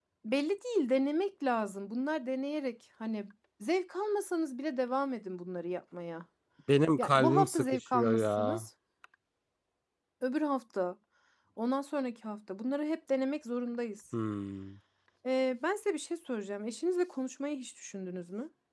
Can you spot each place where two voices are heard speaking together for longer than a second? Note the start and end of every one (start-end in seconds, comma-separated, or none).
7.0-8.6